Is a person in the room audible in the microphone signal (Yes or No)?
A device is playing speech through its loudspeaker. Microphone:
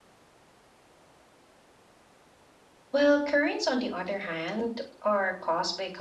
Yes